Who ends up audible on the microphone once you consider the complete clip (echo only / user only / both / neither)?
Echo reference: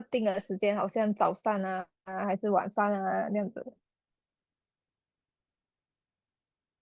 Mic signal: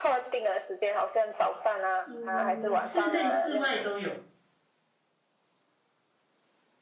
both